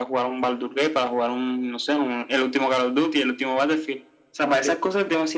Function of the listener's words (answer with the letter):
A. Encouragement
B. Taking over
A